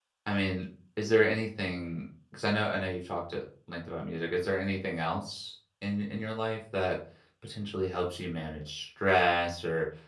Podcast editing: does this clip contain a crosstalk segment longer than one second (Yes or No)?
No